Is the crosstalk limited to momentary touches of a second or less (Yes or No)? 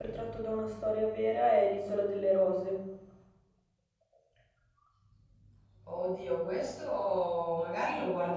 Yes